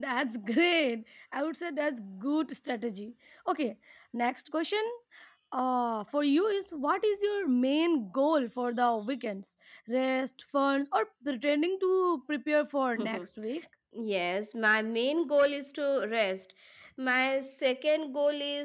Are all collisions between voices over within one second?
Yes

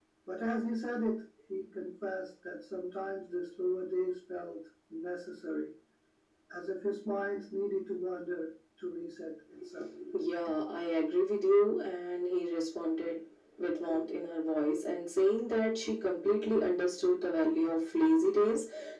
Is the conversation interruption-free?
Yes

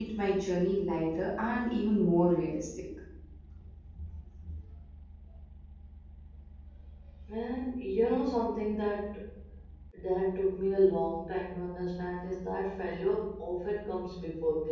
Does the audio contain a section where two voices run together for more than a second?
No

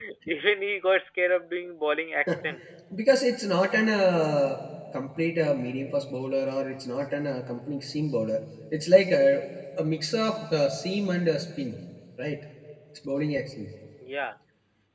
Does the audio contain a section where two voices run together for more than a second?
No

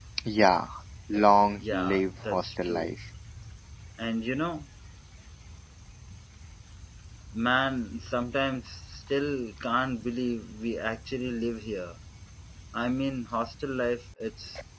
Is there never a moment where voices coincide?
No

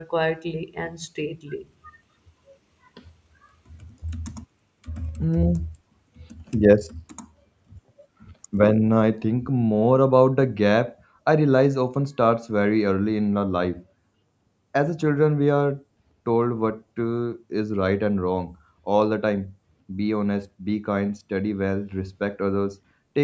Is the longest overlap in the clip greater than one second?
No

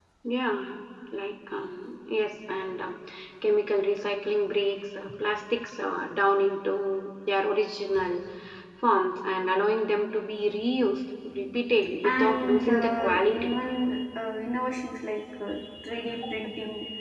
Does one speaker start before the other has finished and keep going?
Yes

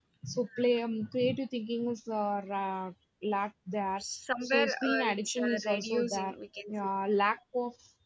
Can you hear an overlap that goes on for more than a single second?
Yes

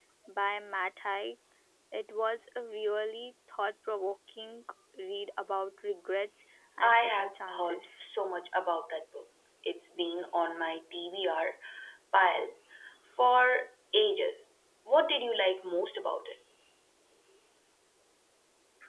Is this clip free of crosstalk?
No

